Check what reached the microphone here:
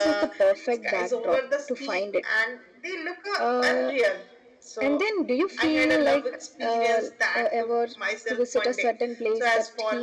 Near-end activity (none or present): none